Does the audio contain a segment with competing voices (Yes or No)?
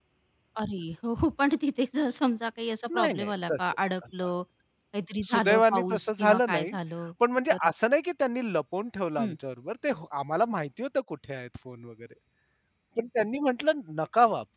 Yes